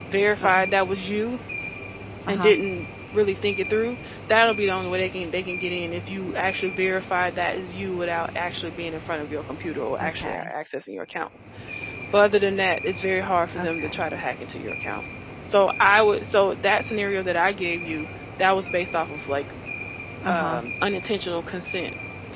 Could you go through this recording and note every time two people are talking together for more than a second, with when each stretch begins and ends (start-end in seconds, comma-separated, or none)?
none